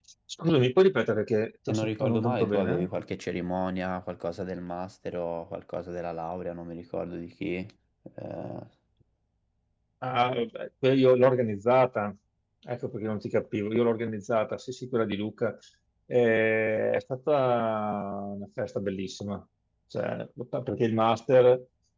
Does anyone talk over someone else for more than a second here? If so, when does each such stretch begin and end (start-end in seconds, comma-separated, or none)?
1.7-2.9